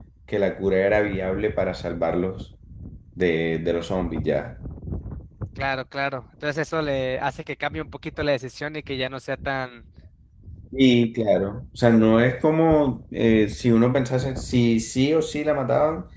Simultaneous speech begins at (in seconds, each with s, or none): none